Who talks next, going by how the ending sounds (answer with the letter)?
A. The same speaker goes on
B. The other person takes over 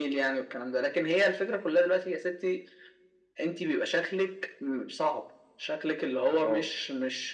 A